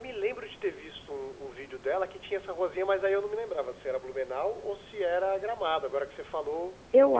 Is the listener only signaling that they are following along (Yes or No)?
No